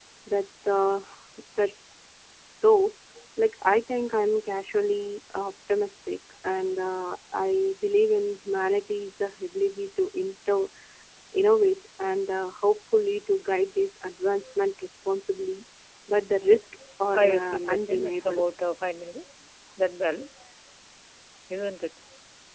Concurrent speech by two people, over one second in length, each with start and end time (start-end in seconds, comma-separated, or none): 17.1-18.4